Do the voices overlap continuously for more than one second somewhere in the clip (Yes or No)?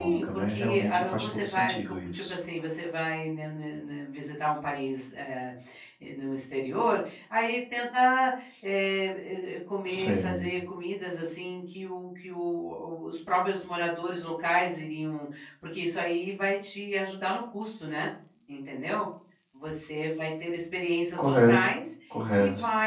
Yes